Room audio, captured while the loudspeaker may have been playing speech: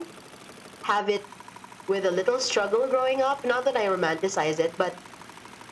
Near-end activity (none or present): none